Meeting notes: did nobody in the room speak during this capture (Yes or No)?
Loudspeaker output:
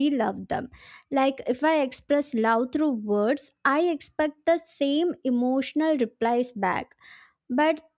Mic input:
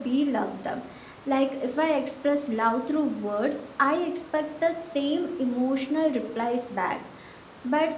Yes